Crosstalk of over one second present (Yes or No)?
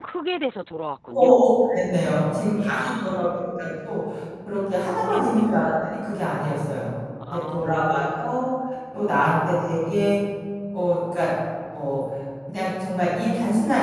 Yes